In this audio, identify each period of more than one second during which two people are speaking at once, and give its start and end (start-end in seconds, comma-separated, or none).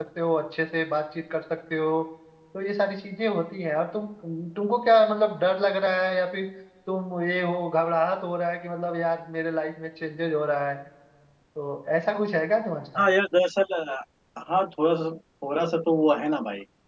none